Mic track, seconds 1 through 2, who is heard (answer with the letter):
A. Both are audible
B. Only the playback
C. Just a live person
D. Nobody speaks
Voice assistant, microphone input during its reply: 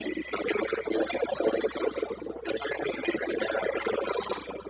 B